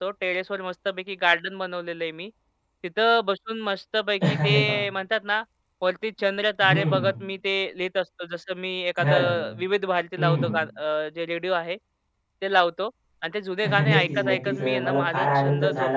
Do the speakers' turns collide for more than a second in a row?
Yes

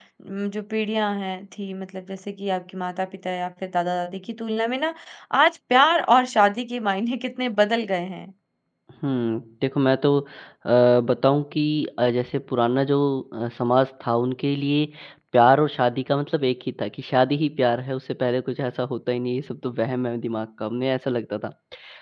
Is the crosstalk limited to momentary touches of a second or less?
Yes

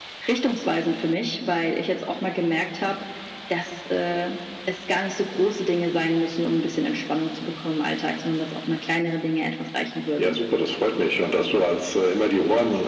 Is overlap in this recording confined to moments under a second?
Yes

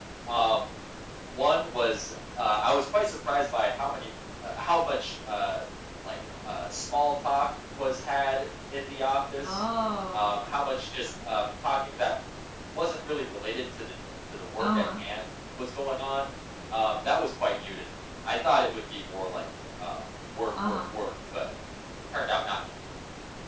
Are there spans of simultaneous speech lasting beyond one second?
No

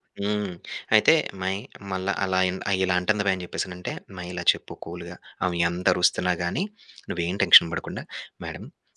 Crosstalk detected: No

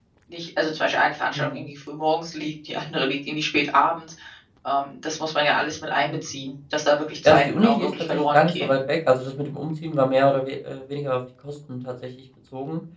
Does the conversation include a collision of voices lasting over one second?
Yes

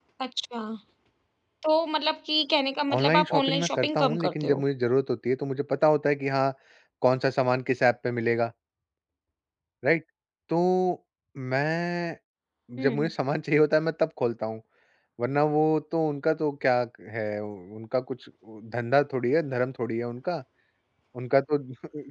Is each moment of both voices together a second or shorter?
No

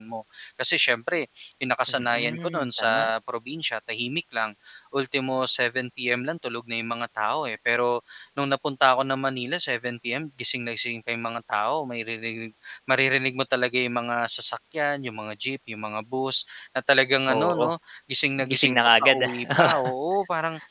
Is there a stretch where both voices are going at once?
Yes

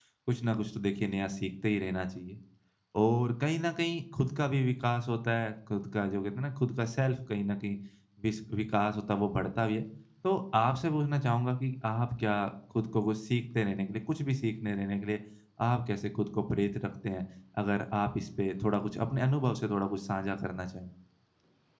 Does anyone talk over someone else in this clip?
No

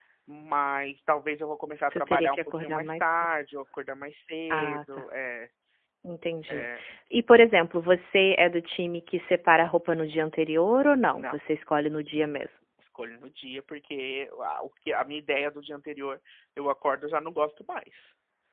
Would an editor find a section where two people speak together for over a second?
Yes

